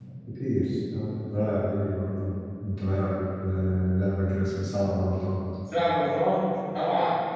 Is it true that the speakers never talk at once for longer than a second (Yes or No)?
Yes